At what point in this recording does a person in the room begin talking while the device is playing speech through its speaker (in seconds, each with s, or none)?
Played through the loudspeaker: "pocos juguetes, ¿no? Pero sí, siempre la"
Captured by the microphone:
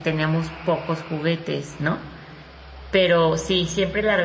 none